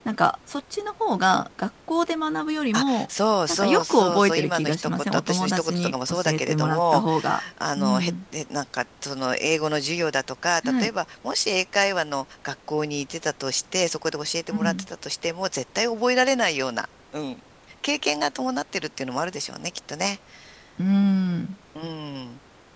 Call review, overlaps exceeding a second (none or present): present